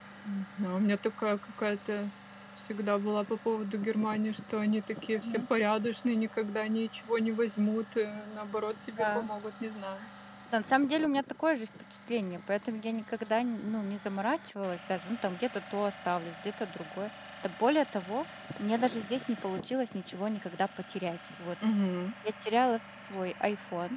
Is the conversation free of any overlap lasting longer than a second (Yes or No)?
Yes